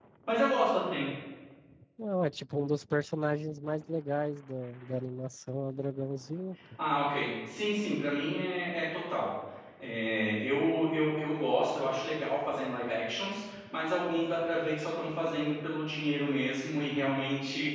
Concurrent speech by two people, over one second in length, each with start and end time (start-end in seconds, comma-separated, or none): none